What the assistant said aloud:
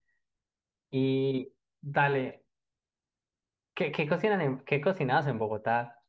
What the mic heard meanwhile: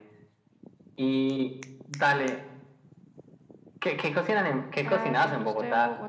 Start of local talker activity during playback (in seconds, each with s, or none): 4.8 s